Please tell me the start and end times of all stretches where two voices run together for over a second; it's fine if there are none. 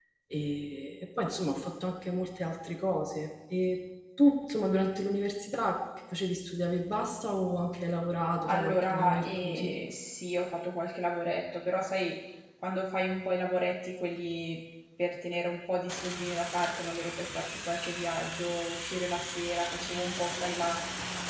8.5-9.7

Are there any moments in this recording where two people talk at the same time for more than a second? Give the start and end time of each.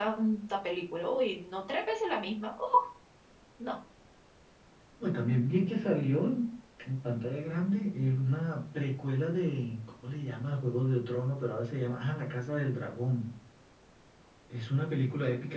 none

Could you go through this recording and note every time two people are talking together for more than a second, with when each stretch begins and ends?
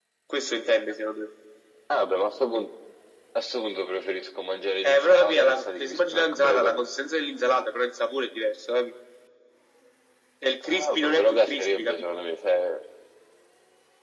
4.8-6.8, 10.7-12.0

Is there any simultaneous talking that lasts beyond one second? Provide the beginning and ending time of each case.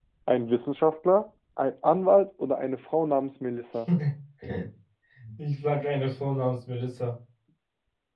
none

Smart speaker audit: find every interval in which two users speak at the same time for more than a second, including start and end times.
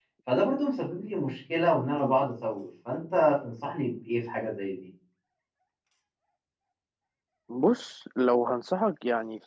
none

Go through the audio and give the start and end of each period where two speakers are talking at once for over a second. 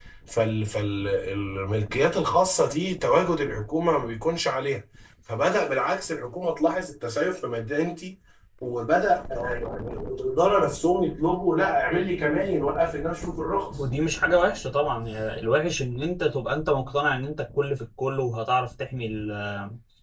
none

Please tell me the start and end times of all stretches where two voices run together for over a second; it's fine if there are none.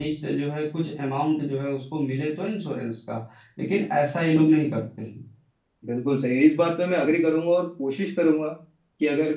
none

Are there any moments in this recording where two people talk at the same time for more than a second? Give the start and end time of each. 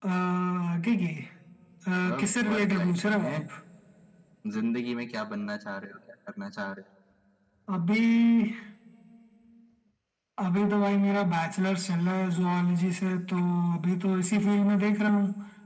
2.0-3.4

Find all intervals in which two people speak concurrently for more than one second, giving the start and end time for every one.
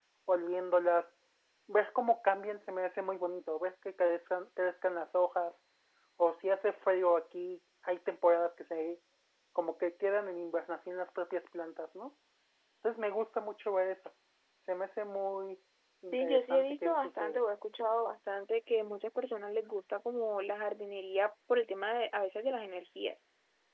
16.1-17.4

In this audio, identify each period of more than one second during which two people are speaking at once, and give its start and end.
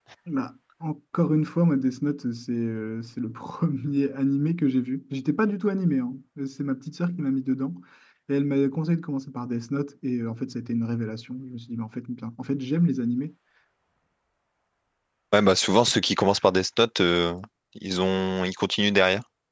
none

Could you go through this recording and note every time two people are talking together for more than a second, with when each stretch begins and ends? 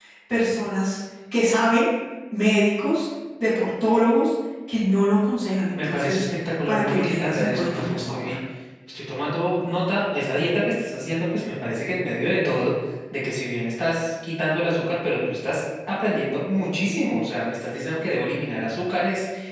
6.7-8.3

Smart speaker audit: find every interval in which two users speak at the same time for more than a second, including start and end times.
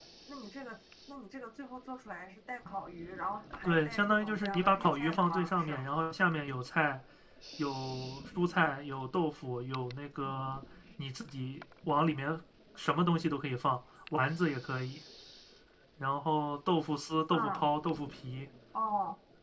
3.6-5.8

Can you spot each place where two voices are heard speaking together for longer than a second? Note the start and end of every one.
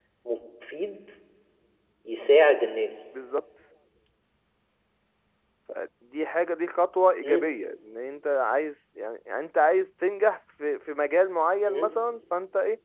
none

